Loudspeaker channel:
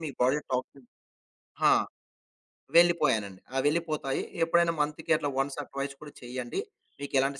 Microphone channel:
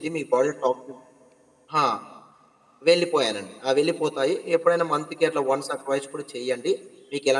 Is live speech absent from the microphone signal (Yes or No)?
Yes